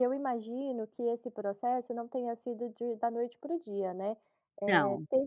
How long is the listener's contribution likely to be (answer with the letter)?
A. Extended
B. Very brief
B